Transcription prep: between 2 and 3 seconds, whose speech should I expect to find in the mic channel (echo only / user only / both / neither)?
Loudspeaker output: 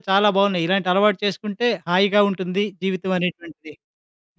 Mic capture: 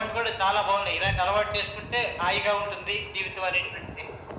echo only